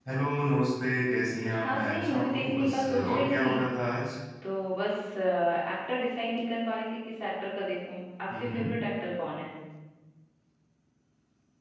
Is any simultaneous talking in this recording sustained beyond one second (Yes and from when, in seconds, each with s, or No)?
Yes, from 1.4 s